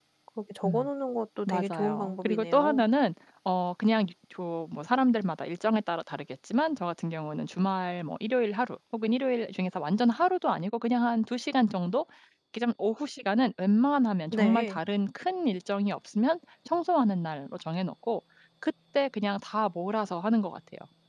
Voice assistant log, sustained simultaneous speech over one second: present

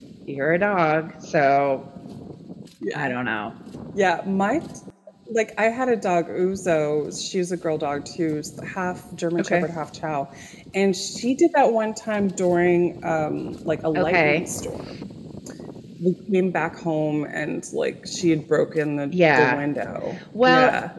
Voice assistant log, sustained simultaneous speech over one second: none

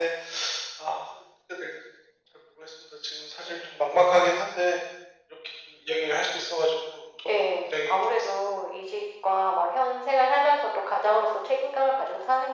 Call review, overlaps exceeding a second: present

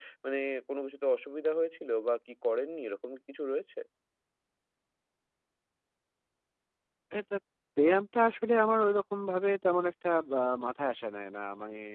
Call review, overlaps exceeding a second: none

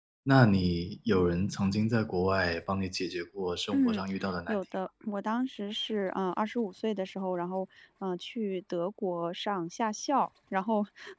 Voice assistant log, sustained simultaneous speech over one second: none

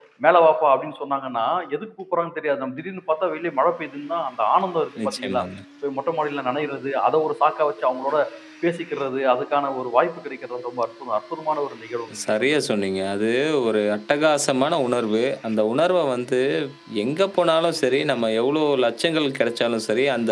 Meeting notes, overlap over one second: none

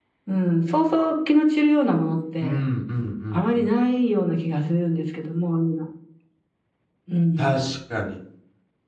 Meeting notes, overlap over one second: none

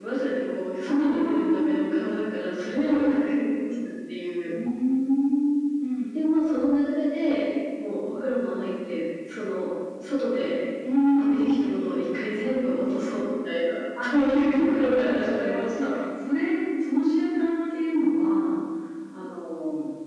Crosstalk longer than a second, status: present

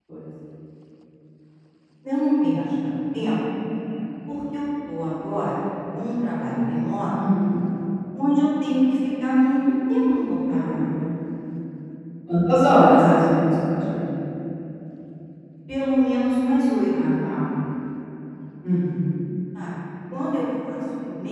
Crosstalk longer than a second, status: none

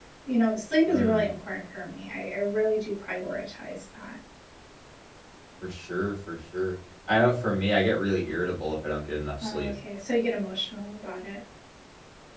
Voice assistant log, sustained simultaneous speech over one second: none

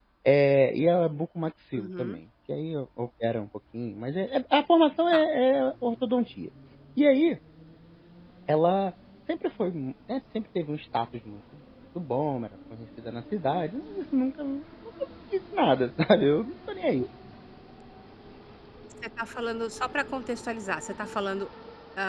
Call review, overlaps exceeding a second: none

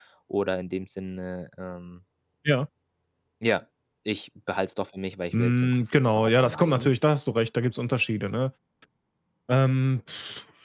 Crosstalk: present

